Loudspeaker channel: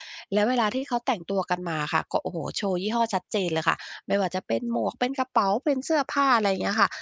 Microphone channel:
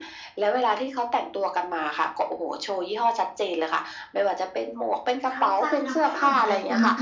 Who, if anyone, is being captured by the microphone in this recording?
both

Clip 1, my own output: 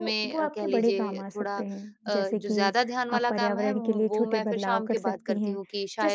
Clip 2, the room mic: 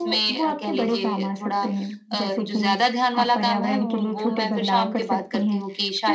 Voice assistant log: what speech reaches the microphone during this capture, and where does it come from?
echo only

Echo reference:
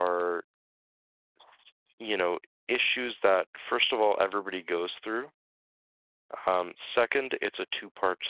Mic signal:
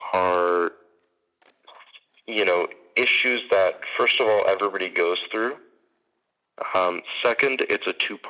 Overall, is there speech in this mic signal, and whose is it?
echo only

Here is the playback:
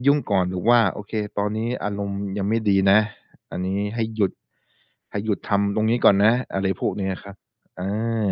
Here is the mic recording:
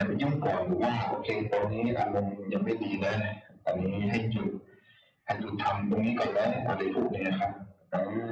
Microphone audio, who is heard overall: echo only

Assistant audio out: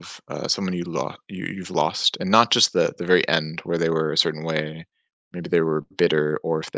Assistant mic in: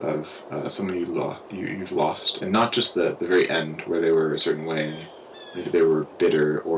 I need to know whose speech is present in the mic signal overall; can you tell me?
echo only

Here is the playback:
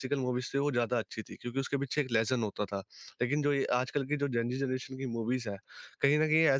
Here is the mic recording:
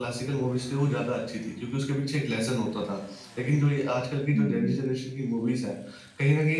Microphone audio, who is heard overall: both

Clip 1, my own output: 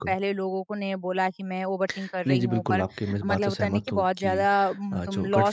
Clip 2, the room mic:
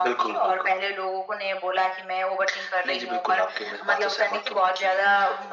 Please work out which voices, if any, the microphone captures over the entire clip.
echo only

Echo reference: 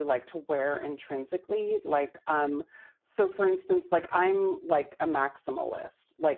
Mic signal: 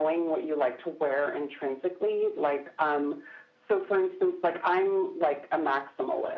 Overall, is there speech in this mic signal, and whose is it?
echo only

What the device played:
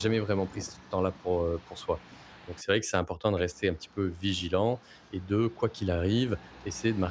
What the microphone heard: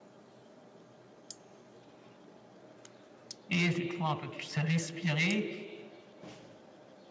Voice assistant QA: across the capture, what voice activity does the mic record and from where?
user only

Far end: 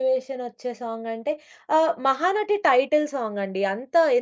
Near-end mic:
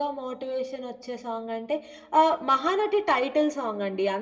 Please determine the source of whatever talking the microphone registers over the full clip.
echo only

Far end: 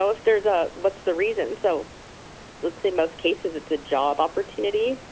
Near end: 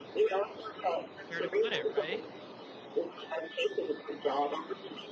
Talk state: both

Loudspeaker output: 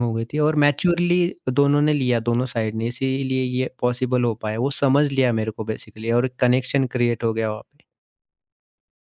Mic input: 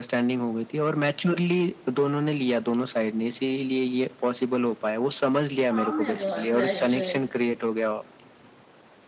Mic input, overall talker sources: both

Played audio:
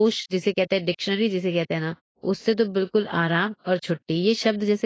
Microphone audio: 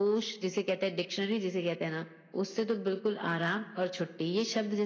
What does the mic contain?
echo only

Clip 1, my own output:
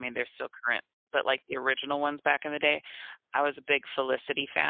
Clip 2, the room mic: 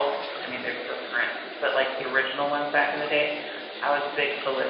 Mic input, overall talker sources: echo only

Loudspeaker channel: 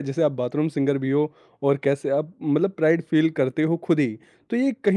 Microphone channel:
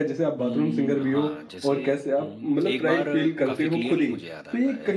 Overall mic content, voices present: both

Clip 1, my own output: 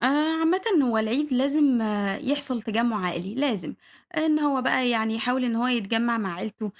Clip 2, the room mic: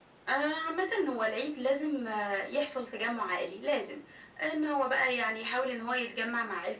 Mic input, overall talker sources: echo only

